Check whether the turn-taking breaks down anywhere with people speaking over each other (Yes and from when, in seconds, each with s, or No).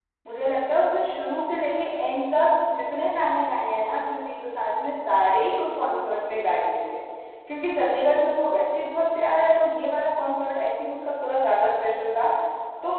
No